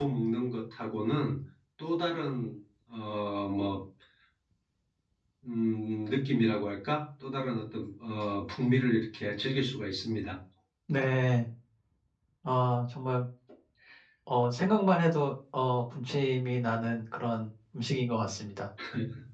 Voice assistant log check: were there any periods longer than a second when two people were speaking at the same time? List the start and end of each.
none

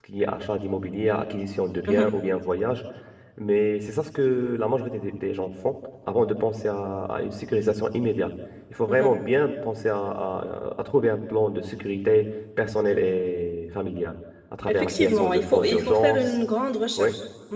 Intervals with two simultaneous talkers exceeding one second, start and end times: 14.7-16.4

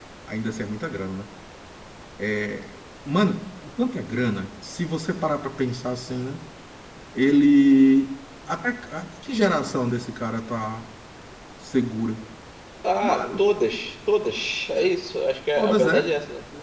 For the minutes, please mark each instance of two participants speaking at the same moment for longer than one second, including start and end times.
none

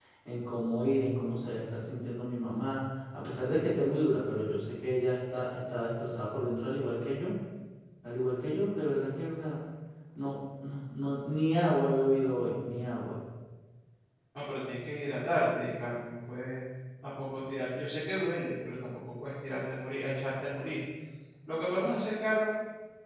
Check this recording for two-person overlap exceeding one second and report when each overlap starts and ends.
none

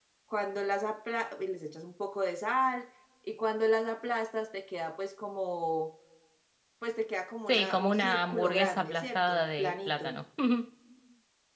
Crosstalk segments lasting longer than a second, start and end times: 7.5-10.2

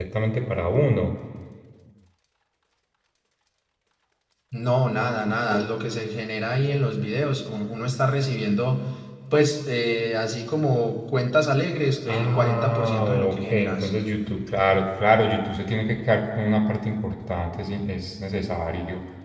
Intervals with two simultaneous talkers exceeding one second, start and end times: 12.1-13.9

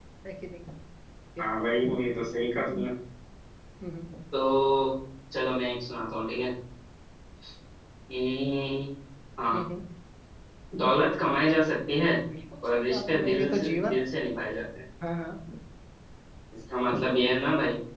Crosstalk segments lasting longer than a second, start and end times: 12.7-13.9

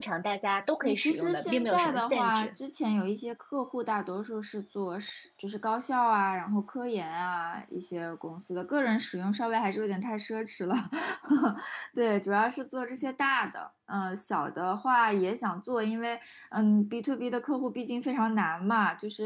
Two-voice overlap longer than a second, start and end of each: 0.8-2.5

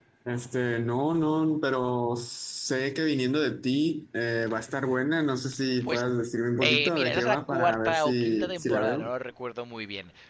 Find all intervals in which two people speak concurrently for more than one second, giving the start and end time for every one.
6.6-9.1

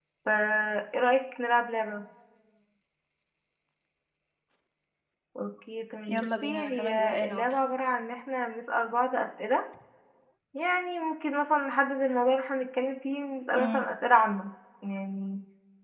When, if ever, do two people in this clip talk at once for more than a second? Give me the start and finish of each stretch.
6.1-7.5

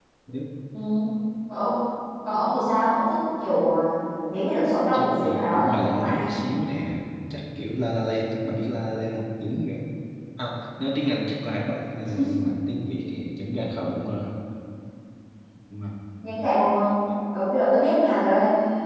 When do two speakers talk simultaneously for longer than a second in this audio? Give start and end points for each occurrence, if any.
4.9-6.3

